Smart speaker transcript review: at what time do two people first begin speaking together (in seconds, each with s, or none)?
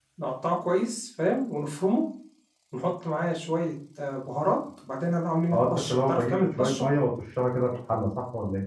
5.5 s